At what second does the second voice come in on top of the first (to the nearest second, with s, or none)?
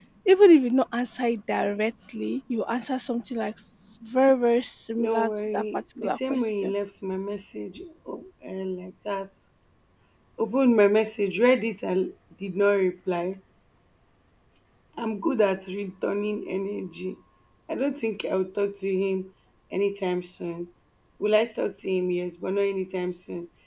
5 s